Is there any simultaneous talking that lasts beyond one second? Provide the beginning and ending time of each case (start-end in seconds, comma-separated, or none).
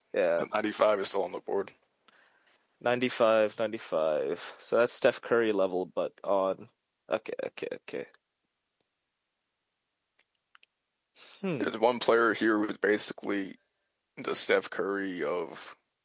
none